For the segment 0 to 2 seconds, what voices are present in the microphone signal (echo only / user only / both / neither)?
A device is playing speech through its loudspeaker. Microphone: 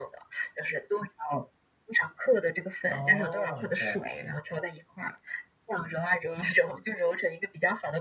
echo only